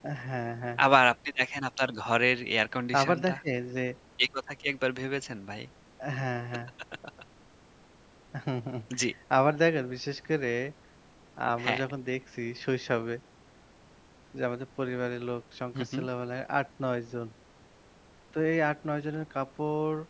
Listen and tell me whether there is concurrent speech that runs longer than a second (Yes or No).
No